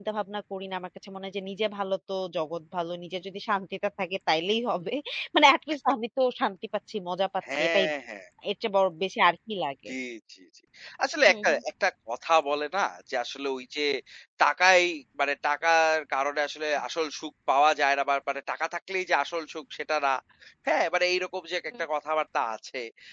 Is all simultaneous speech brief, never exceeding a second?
Yes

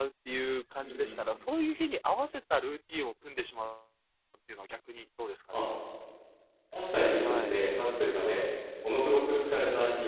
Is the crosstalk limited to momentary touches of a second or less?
Yes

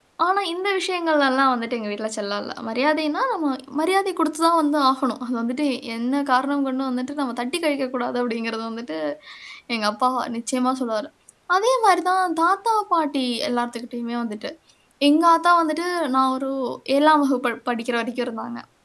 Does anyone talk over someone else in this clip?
No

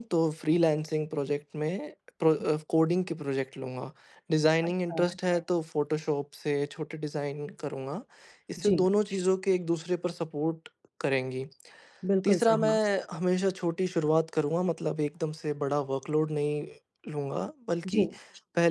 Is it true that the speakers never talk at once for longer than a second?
Yes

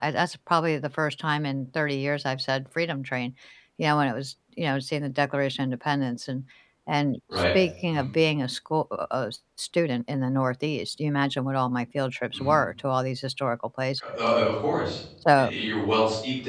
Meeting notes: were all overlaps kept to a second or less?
Yes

